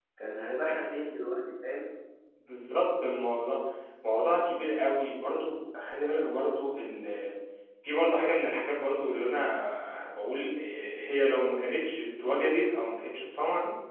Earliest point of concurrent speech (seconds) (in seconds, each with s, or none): none